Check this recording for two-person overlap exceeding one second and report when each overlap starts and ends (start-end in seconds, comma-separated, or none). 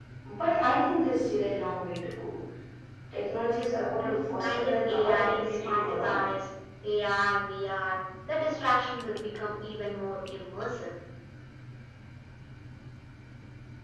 4.0-6.1